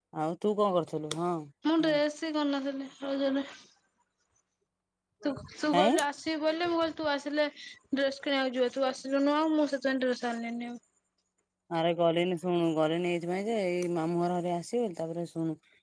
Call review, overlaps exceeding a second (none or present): none